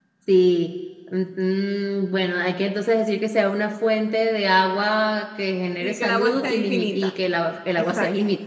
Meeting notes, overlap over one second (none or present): present